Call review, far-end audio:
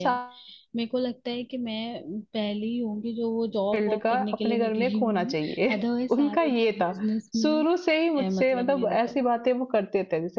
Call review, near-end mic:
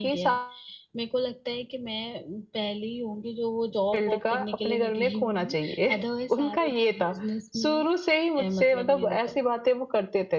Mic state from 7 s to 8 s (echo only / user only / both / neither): echo only